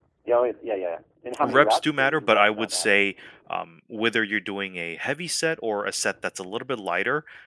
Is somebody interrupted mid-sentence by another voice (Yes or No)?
Yes